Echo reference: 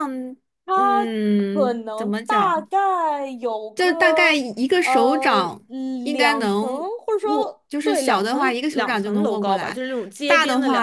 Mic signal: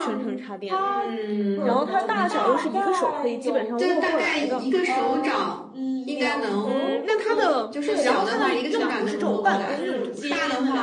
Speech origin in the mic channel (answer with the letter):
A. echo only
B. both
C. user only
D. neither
B